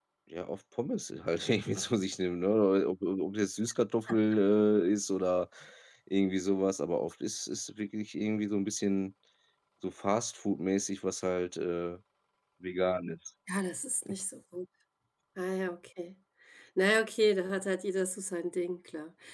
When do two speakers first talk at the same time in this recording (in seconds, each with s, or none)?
none